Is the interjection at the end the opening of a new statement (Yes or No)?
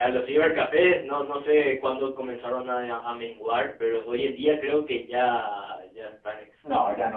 Yes